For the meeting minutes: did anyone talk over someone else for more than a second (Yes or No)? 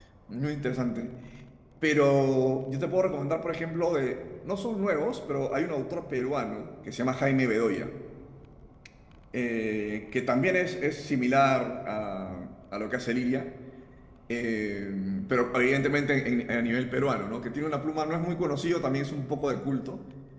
No